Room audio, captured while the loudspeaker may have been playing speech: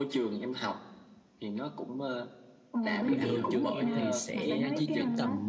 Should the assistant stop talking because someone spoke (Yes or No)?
Yes